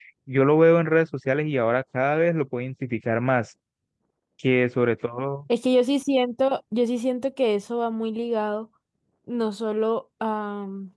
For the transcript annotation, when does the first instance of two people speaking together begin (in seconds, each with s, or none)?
none